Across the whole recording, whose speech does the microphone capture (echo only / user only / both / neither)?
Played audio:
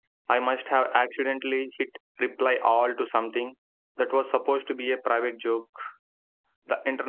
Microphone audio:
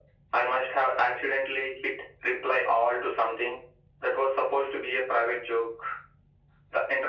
echo only